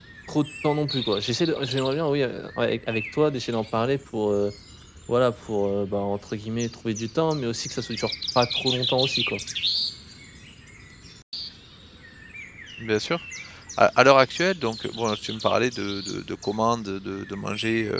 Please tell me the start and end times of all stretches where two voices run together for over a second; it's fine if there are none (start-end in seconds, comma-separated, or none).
none